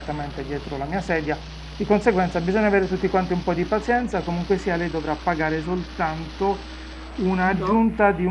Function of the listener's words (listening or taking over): listening